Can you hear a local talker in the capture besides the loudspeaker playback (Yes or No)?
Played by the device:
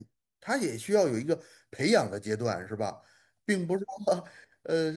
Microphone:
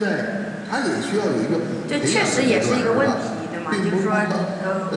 Yes